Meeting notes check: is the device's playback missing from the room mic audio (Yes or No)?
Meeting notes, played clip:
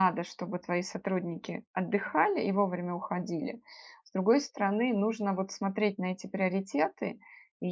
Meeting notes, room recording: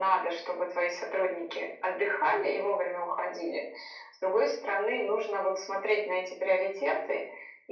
No